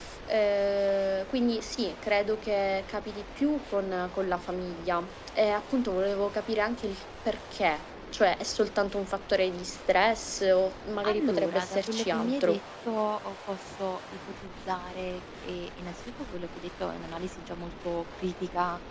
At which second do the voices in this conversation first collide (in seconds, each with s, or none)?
11.0 s